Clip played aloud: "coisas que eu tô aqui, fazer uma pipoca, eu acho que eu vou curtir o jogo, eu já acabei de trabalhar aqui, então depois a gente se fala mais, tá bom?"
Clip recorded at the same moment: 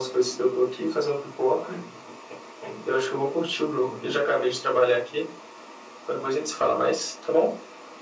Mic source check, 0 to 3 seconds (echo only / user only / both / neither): echo only